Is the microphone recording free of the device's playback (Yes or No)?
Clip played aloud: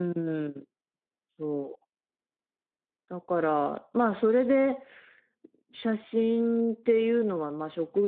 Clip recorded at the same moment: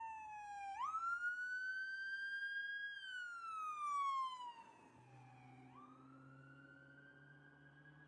Yes